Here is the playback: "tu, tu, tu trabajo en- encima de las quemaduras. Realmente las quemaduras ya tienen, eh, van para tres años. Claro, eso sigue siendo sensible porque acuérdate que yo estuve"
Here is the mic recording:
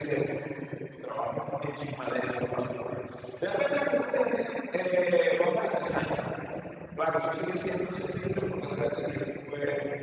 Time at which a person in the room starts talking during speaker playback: none

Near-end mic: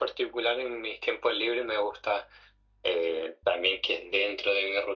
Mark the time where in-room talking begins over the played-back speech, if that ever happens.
none

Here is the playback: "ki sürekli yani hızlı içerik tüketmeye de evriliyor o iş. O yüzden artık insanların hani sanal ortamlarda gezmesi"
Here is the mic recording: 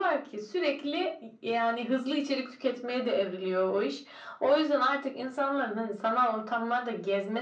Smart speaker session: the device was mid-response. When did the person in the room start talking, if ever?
none

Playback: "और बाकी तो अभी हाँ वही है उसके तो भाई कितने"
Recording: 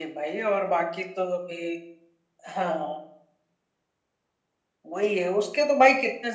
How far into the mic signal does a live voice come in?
none

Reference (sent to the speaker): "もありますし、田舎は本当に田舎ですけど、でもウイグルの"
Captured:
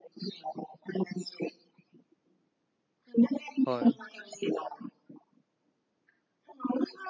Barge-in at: 3.6 s

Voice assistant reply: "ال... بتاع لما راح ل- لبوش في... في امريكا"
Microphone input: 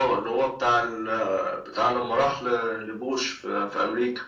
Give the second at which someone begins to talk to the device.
none

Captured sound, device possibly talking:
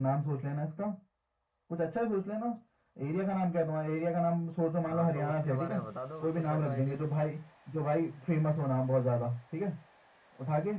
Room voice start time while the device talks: 4.9 s

